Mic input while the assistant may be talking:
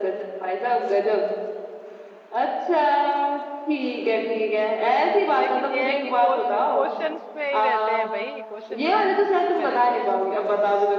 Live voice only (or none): लेकिन ये है कि क्वेश्चंस में ही रहते हैं भाई क्वेश्चन में ही आंसर्स पे रहते हैं